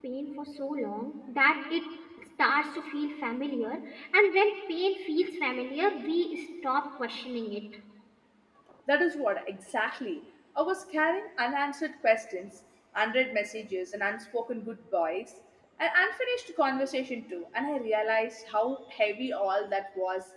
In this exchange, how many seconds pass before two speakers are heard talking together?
none

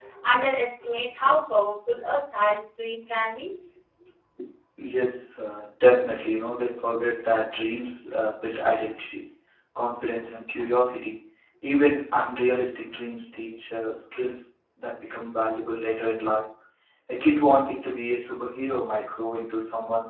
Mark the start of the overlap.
none

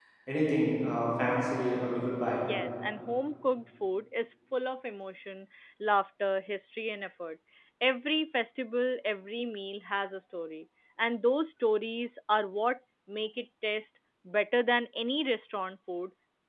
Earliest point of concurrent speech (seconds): none

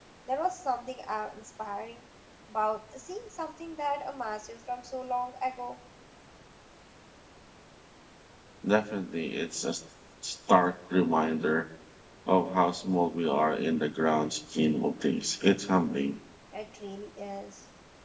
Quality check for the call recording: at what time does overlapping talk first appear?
none

